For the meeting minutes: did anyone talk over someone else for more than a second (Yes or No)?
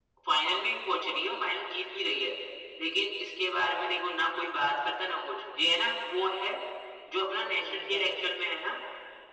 Yes